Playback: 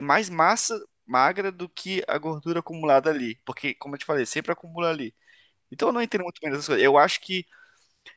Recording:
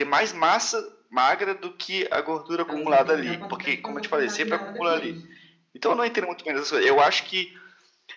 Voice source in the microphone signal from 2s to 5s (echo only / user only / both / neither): both